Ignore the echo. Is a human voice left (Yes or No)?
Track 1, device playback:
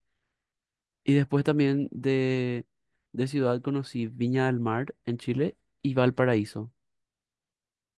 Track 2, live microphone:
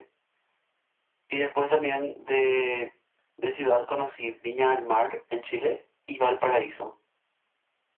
No